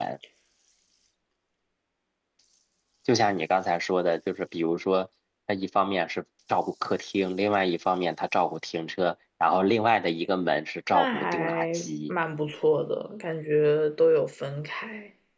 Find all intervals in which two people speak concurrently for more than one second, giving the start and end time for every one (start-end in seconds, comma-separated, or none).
10.9-12.1